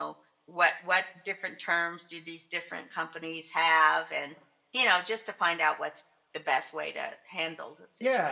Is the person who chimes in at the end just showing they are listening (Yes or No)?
No